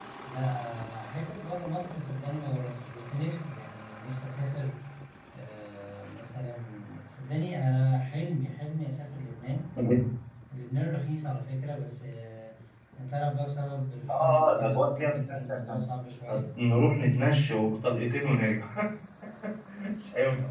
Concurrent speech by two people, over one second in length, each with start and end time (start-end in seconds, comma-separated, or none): 14.1-15.8